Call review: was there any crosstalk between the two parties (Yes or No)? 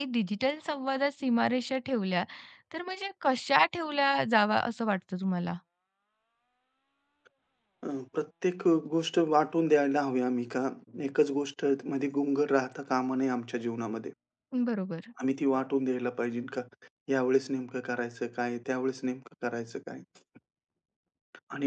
No